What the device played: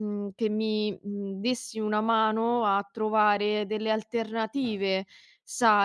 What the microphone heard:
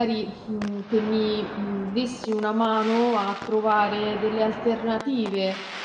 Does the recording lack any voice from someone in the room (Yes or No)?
Yes